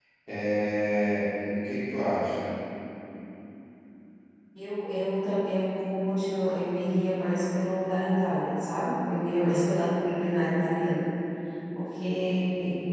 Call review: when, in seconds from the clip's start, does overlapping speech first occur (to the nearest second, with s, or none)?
none